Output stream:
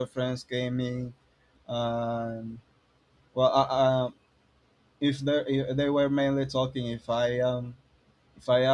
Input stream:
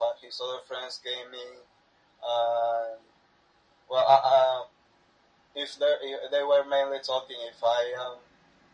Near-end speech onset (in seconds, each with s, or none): none